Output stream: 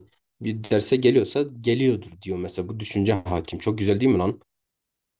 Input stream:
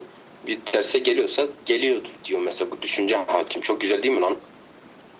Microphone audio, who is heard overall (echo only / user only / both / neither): echo only